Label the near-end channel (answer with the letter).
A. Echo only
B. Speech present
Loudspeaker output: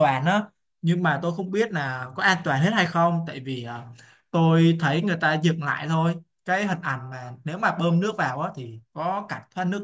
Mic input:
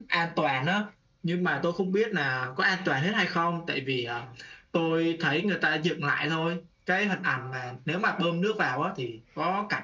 A